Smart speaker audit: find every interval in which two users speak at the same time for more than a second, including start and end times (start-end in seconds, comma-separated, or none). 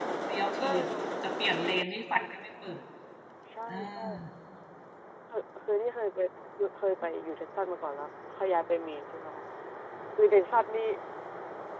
none